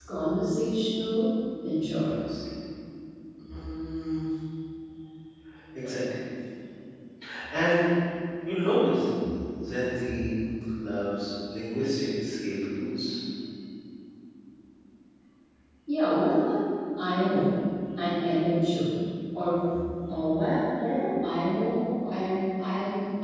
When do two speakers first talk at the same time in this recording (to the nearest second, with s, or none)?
none